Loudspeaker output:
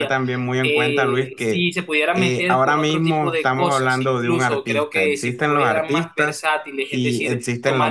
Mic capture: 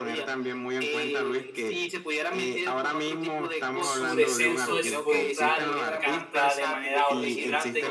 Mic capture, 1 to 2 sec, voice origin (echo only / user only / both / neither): echo only